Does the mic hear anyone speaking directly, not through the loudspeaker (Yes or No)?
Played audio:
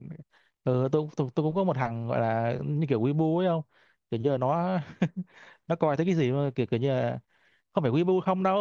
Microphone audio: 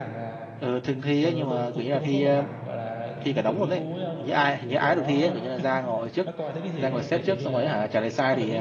Yes